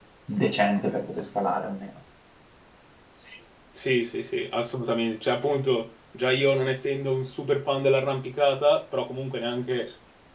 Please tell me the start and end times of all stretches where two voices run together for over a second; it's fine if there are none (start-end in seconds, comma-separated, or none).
none